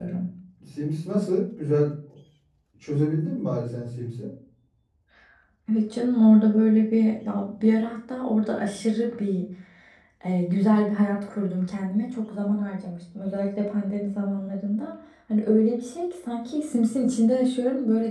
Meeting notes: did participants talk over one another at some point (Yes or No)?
No